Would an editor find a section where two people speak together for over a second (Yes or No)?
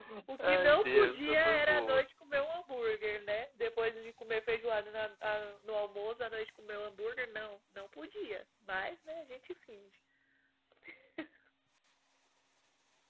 Yes